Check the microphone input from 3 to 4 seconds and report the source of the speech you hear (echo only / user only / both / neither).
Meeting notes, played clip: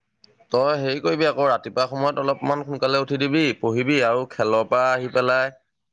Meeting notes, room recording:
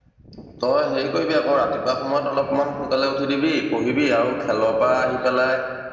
echo only